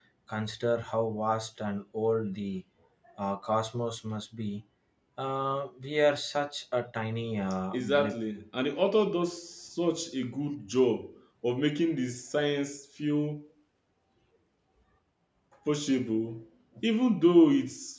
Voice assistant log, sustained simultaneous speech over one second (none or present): none